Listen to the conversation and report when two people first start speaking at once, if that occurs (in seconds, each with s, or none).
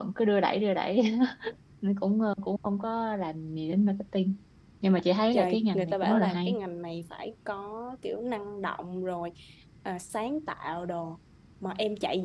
5.3 s